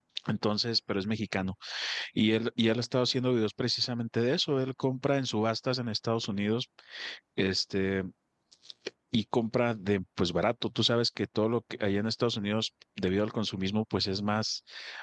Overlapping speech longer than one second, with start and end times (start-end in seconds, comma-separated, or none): none